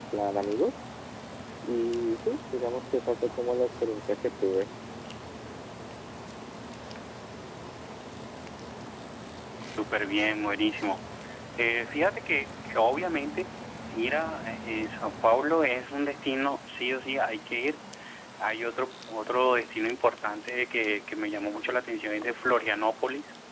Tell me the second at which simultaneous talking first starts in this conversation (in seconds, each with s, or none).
none